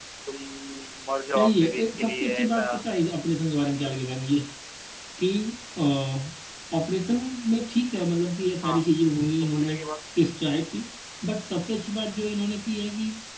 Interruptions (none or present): present